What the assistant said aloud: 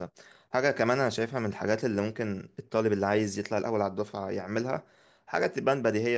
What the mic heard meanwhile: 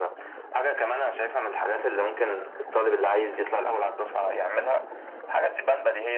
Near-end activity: none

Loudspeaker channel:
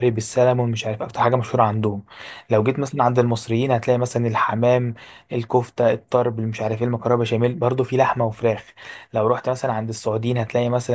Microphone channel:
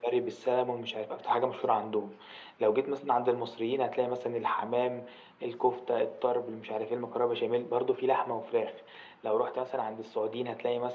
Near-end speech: none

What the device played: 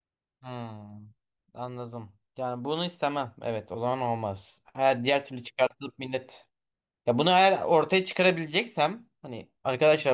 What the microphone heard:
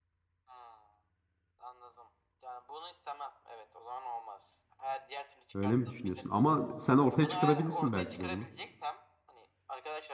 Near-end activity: present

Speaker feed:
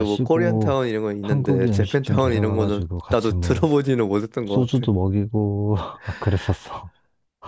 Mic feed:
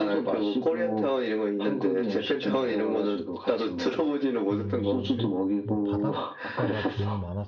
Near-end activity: present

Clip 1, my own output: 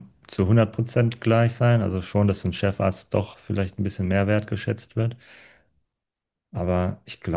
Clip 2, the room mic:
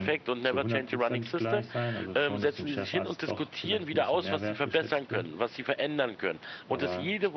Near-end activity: present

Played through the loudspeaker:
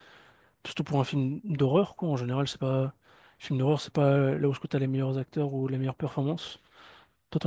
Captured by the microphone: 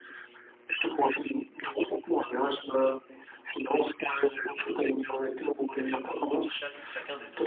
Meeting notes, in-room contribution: present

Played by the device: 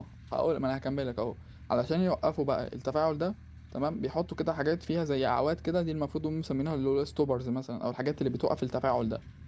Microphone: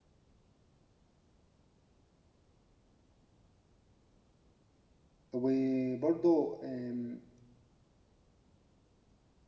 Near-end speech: present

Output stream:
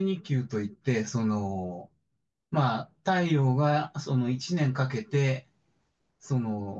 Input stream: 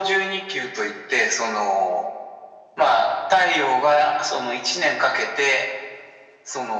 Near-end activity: none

